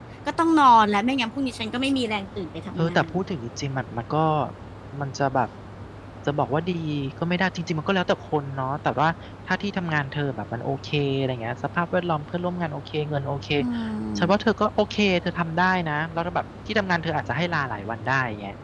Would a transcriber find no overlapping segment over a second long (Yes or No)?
Yes